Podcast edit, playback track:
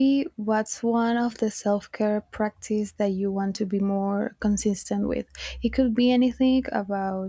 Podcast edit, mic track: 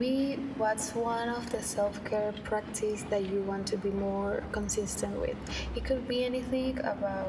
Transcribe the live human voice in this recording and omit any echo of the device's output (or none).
none